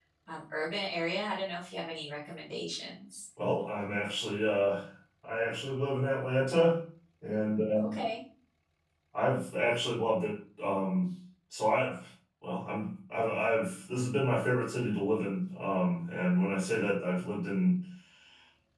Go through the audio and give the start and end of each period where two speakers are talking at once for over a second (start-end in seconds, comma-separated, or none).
none